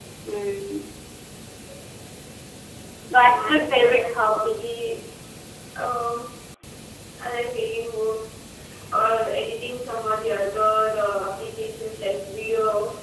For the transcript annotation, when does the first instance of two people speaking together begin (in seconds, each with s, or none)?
3.4 s